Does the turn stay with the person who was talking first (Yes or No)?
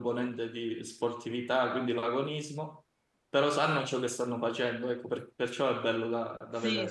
No